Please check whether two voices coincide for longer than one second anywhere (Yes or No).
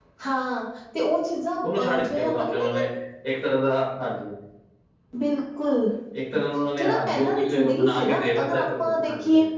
Yes